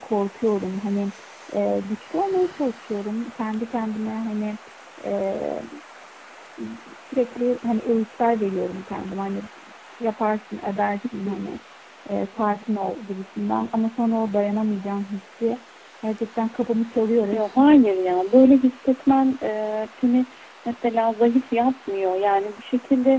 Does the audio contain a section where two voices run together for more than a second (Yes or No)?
No